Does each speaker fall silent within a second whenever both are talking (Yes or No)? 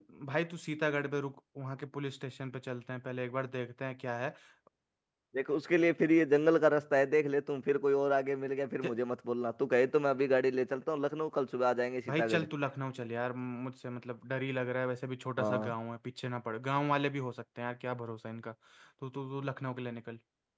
Yes